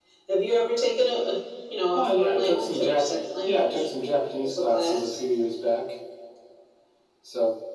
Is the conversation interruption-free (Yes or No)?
No